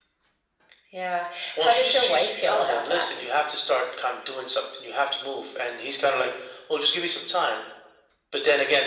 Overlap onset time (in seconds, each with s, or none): 1.6 s